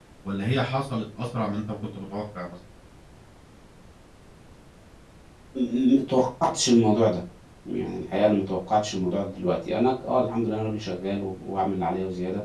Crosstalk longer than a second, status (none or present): none